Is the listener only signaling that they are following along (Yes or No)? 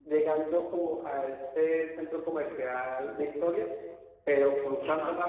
Yes